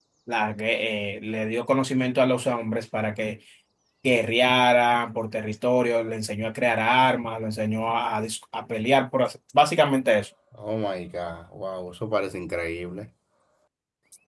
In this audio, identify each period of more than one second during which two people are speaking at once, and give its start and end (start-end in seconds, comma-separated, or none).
none